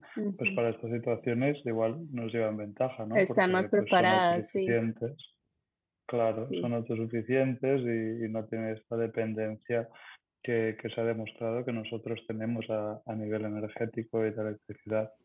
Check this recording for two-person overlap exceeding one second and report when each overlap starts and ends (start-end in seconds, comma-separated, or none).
3.1-4.8